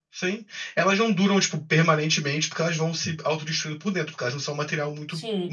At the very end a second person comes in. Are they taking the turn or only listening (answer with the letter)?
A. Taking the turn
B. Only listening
A